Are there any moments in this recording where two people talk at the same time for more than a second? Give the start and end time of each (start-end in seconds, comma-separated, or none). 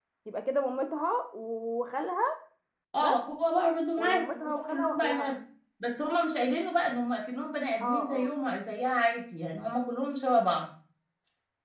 4.0-5.3